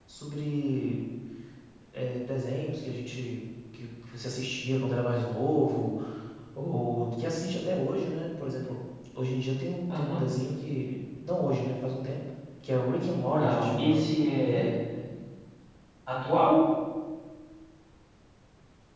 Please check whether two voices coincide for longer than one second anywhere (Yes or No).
Yes